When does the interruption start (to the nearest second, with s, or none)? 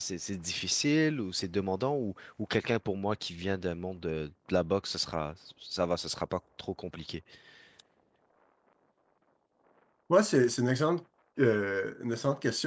none